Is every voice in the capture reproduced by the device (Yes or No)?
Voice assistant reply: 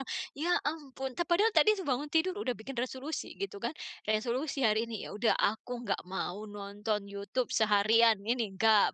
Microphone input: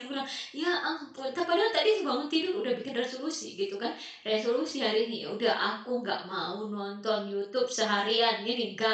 Yes